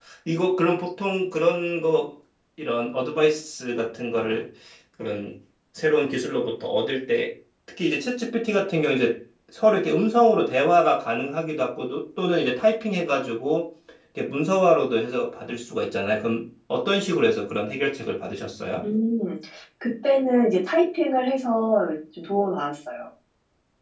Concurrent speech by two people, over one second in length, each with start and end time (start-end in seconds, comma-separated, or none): none